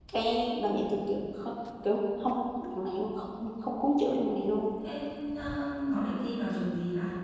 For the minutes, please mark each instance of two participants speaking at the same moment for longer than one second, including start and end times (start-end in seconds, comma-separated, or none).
none